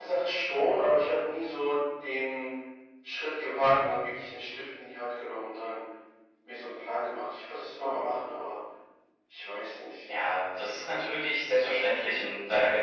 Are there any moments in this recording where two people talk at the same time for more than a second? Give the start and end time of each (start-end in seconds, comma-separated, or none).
none